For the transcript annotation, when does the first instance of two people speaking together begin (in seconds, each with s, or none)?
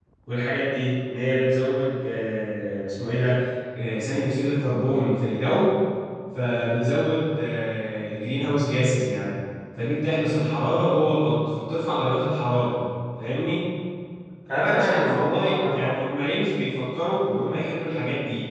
14.5 s